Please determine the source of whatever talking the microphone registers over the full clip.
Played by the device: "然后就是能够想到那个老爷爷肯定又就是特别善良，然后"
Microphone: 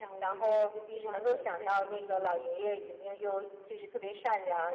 both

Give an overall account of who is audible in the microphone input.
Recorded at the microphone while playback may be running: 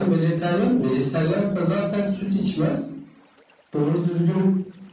both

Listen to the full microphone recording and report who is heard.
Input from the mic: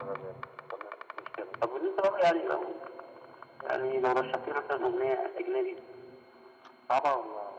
echo only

